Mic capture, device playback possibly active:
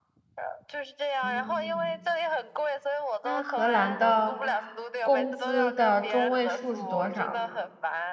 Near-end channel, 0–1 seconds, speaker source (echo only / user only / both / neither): echo only